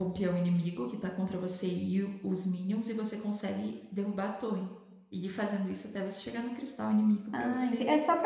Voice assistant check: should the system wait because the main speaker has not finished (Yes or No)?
No